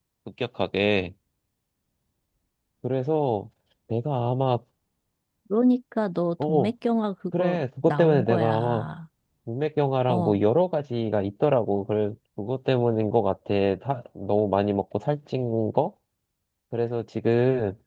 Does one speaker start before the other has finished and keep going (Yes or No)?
Yes